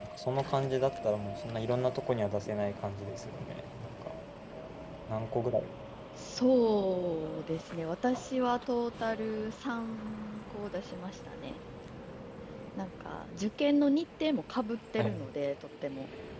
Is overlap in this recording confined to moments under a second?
Yes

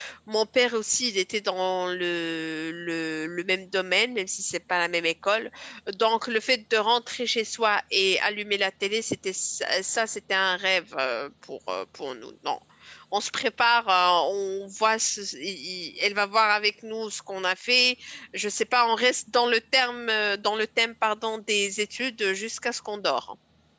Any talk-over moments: No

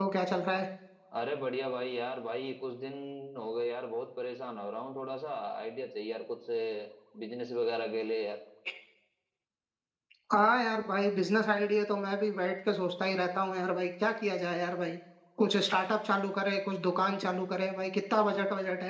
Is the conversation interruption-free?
Yes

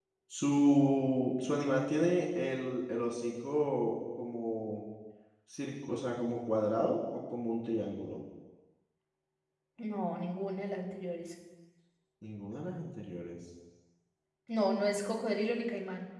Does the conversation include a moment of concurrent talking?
No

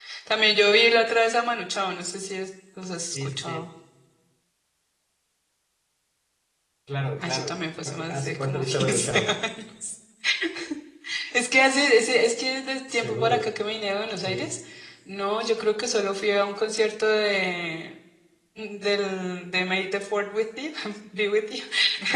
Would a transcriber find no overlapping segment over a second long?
No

